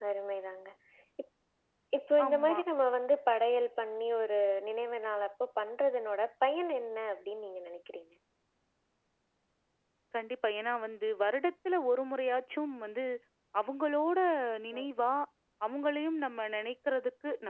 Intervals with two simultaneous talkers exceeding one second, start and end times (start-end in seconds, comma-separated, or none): none